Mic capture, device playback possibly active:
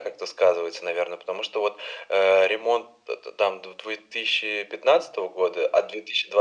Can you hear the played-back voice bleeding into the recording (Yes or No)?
Yes